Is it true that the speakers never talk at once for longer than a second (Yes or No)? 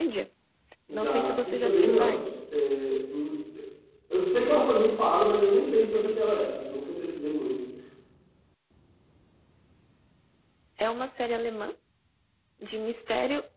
No